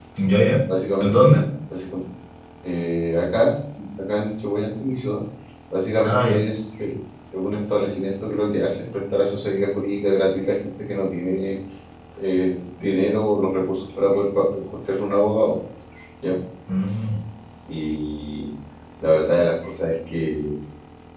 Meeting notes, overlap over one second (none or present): none